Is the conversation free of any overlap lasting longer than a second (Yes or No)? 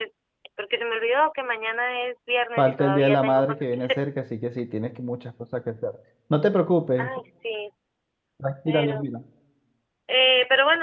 No